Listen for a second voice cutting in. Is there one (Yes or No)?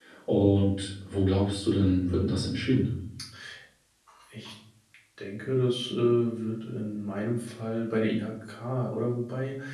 No